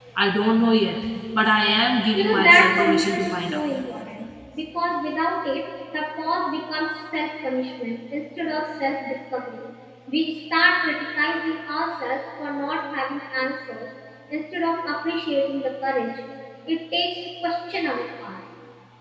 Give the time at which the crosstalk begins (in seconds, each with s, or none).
2.1 s